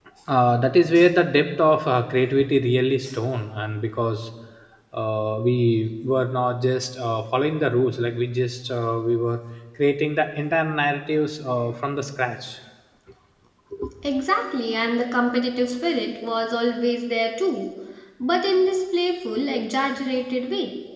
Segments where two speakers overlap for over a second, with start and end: none

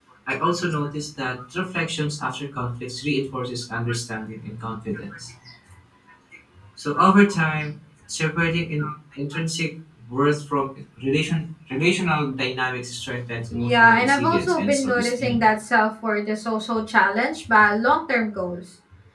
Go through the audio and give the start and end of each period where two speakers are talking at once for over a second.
13.5-15.4

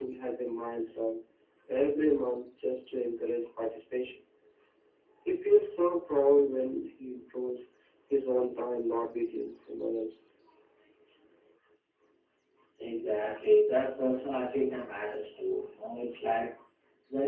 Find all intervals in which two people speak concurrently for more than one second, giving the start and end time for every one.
none

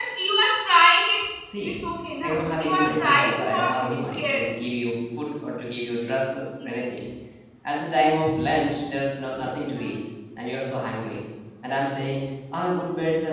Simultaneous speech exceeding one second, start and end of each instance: 2.2-3.6

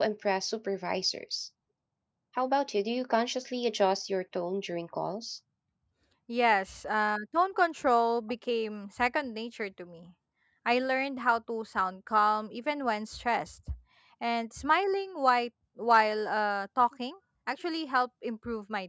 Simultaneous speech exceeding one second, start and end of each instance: none

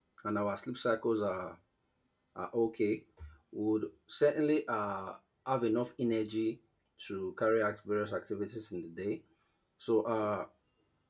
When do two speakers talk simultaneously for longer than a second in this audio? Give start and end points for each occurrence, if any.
none

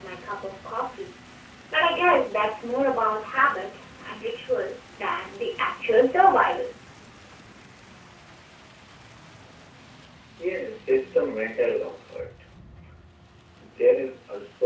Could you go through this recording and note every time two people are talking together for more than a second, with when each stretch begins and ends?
none

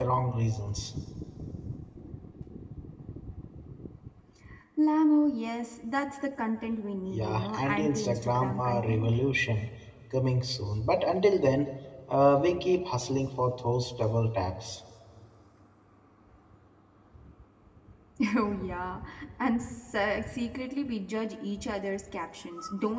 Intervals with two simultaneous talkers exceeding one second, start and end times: 7.1-9.1

